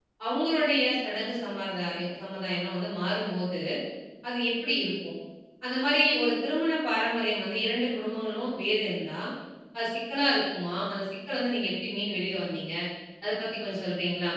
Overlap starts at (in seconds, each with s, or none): none